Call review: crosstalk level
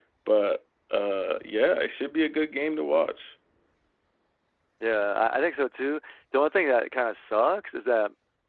none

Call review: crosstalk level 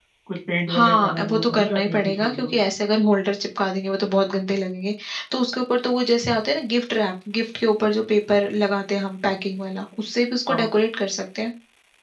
present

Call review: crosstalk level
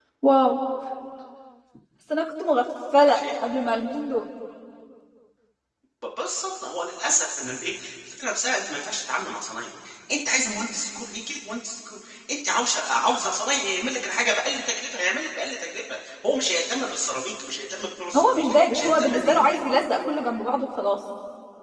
present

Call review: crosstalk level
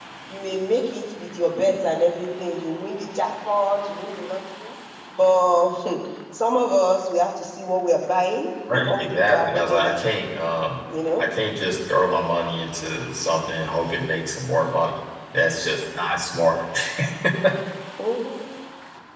present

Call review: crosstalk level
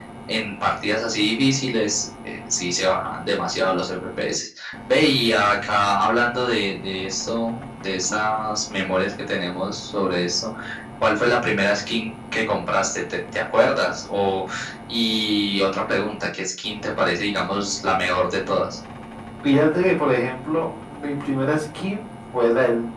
none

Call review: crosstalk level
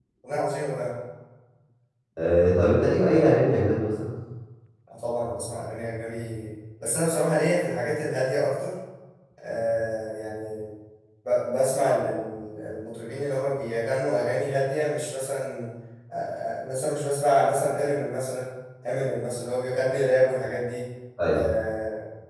none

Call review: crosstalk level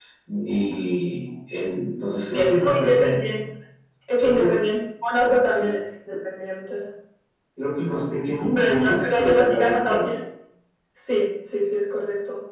present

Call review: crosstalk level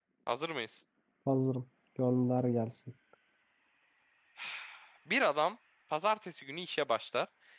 none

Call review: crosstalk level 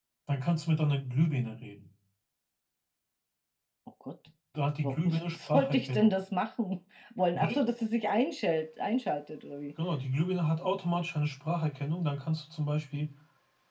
present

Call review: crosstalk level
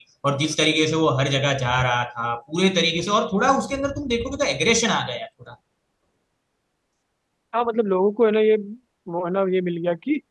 none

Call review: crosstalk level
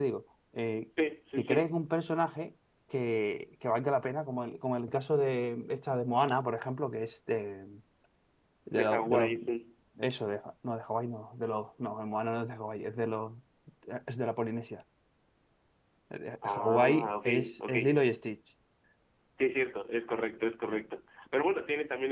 present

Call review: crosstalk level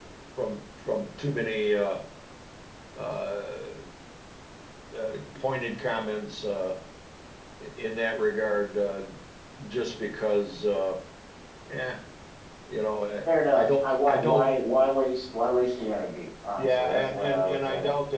present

